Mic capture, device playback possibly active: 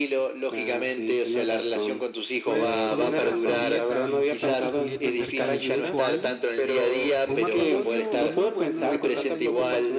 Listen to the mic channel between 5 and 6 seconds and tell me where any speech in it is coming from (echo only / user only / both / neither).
both